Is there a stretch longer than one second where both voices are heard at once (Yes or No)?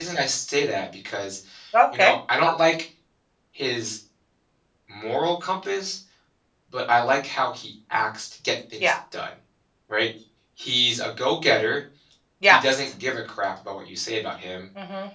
No